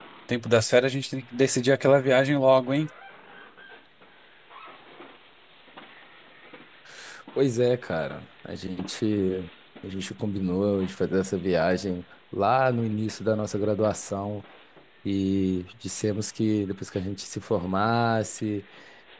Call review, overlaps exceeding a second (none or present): none